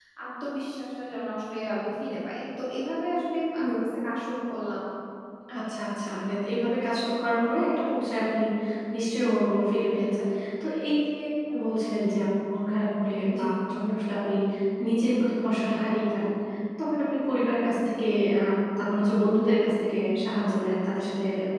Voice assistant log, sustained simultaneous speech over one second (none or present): none